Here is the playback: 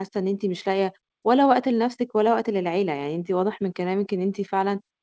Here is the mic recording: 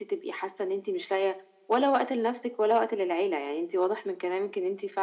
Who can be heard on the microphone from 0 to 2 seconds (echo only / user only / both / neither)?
echo only